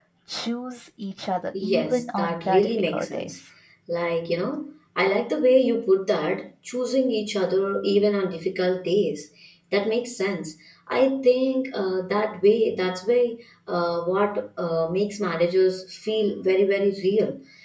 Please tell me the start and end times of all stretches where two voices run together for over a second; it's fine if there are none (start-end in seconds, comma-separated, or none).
1.6-3.3